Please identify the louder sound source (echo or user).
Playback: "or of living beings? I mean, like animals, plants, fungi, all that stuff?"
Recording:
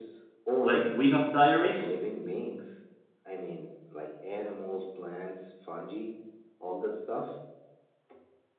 user